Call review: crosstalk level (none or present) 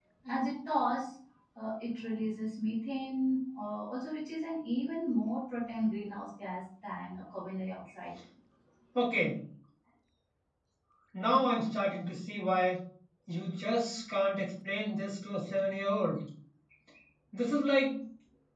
none